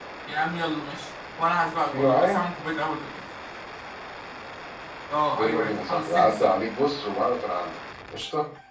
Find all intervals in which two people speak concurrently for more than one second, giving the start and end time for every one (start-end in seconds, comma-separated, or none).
5.4-6.6